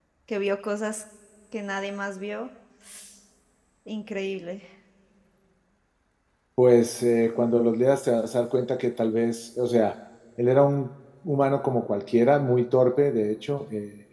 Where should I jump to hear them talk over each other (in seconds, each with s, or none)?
none